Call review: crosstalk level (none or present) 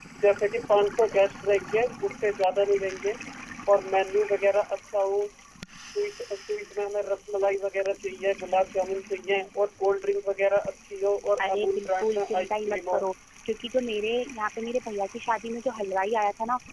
present